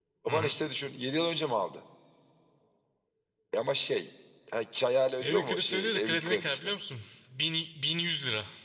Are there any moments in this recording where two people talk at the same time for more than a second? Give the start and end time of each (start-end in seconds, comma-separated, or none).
5.2-6.7